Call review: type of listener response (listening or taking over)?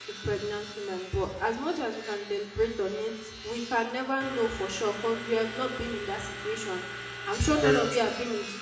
listening